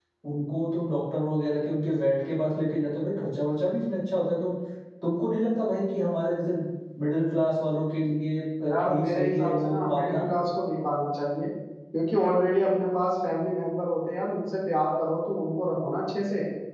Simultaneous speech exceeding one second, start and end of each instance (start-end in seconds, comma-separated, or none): 8.7-10.2